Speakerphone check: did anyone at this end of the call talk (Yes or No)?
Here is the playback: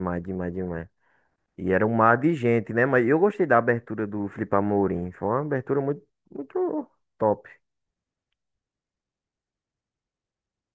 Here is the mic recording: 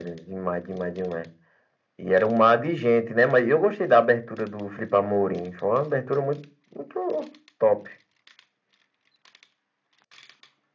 No